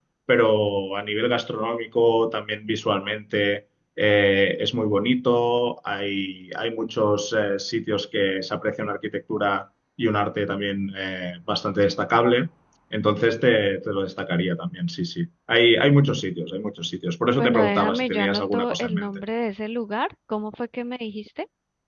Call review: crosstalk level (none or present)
present